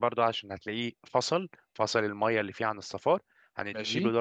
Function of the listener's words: listening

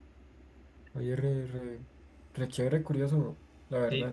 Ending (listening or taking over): taking over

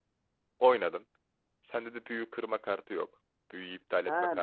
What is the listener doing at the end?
taking over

